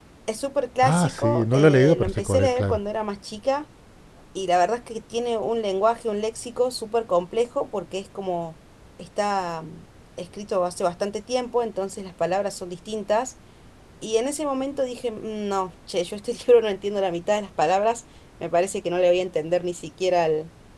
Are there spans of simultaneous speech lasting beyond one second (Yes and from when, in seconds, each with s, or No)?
Yes, from 0.8 s